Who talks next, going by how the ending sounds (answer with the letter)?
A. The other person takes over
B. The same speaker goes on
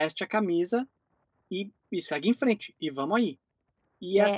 B